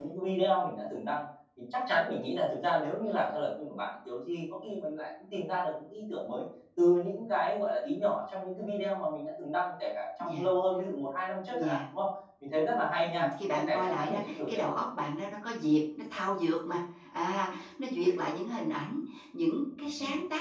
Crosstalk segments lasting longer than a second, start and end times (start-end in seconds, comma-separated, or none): 13.0-14.6